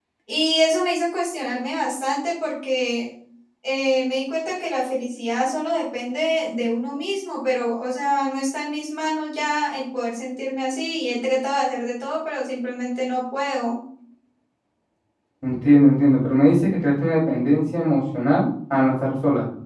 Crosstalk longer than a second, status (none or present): none